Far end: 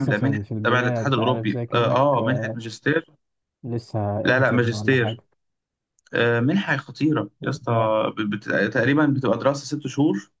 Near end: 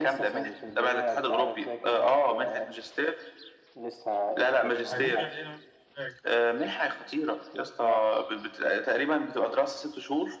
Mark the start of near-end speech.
4.9 s

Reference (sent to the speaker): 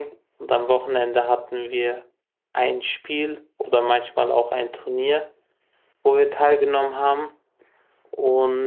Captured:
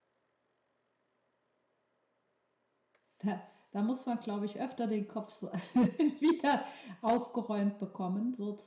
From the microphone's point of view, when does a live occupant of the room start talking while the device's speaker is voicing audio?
3.2 s

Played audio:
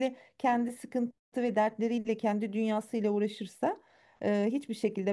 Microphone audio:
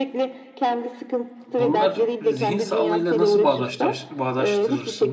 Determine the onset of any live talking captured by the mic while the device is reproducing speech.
1.4 s

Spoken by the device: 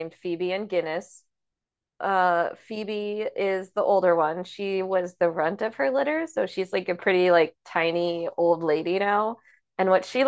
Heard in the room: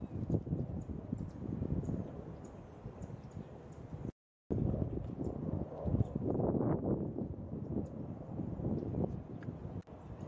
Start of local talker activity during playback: none

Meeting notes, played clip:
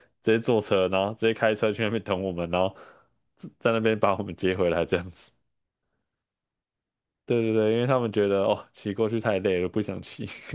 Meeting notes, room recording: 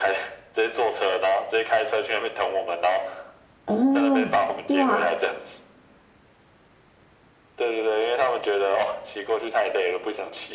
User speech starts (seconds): 3.6 s

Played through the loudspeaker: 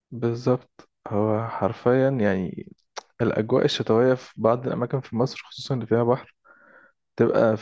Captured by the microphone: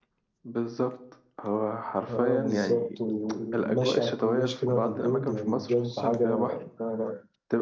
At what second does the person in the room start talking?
2.1 s

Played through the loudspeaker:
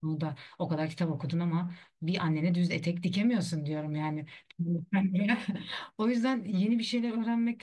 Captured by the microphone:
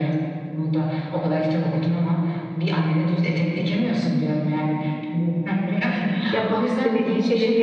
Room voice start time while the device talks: 6.3 s

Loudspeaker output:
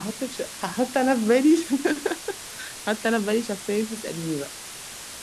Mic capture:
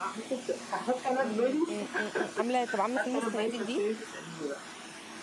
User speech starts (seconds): 1.2 s

